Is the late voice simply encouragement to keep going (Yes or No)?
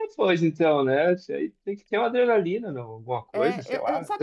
No